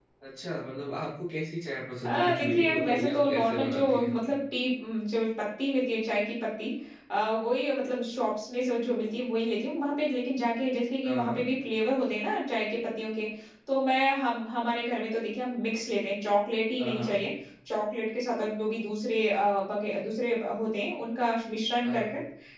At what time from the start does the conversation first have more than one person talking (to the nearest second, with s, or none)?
2 s